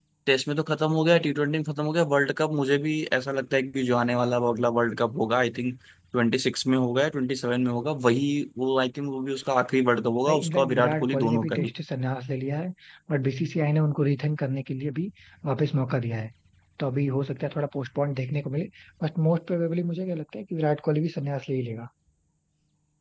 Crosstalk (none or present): present